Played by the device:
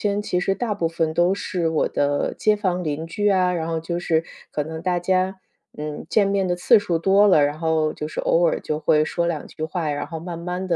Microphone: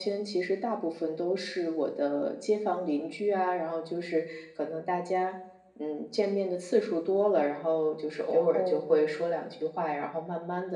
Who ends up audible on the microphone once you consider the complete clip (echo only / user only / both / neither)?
both